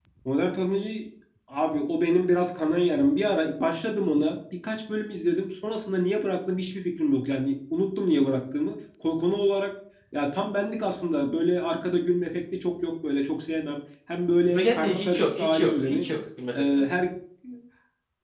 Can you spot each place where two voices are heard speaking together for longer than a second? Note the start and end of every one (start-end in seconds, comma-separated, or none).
14.5-16.1